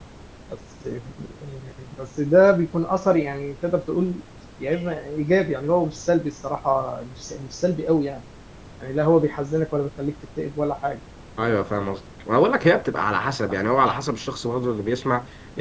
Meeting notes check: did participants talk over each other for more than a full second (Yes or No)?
No